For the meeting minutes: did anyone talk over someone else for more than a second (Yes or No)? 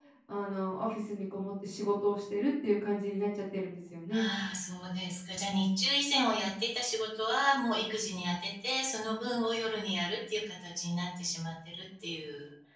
No